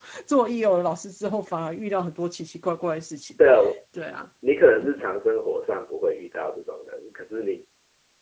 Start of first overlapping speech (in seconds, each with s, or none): none